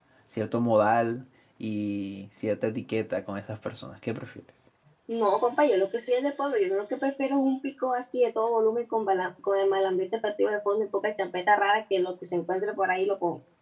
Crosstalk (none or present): none